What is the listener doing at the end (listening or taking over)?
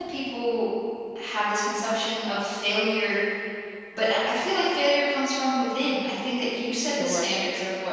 listening